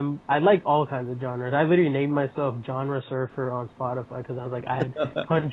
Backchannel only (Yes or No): Yes